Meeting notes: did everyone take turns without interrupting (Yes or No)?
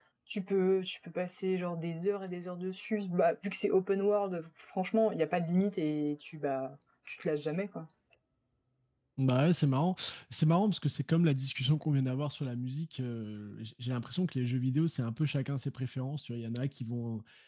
Yes